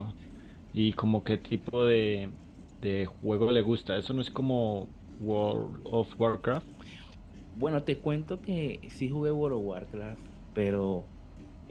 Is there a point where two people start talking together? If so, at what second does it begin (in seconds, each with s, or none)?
none